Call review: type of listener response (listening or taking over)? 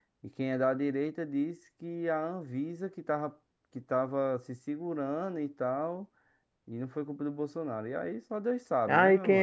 taking over